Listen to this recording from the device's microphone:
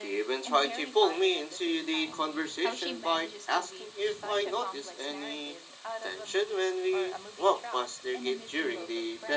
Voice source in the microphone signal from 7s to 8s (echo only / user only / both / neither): echo only